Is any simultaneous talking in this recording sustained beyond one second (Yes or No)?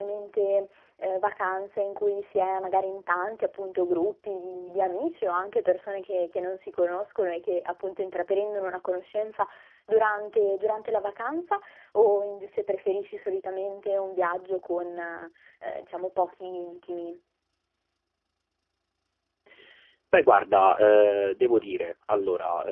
No